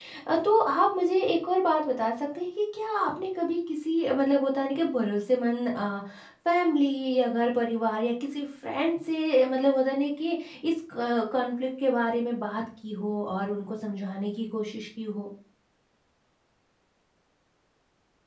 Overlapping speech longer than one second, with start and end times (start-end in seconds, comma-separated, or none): none